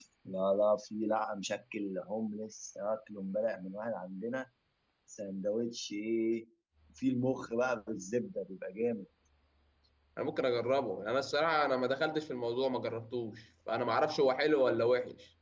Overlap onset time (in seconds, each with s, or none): none